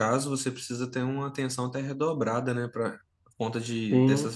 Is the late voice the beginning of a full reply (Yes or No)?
No